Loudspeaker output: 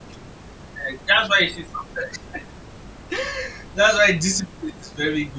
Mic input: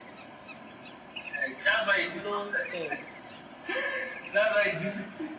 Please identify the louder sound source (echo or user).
echo